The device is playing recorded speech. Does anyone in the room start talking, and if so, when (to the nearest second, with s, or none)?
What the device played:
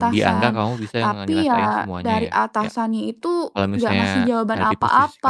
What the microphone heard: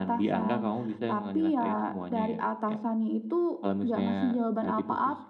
none